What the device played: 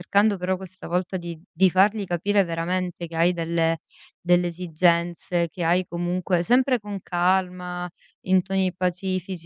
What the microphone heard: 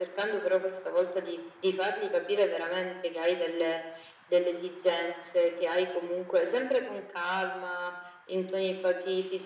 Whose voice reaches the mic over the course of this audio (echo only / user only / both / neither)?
echo only